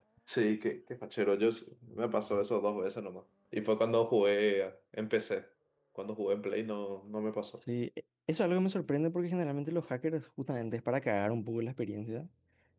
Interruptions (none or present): none